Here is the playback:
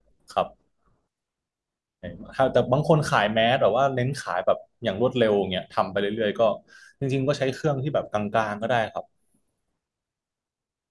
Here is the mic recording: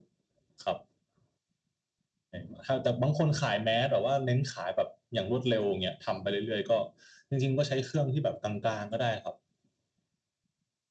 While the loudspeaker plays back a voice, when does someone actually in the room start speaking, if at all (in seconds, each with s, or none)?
none